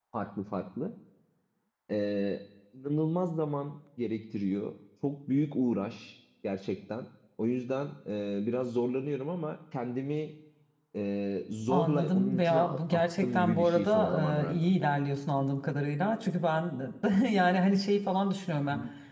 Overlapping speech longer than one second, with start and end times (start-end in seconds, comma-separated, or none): 11.7-14.7